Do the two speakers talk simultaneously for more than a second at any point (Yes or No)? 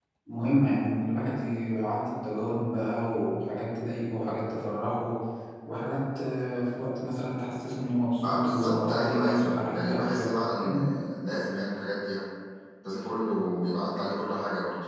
Yes